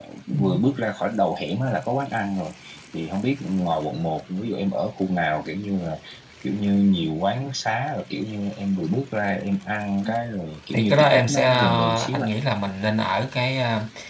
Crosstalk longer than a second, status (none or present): present